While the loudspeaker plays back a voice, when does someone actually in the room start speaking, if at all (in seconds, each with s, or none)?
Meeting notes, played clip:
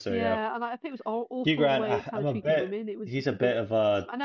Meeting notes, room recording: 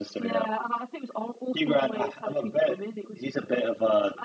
none